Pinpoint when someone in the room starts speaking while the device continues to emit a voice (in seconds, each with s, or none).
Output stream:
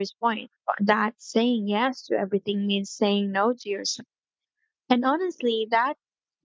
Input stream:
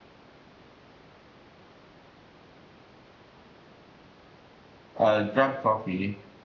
5.0 s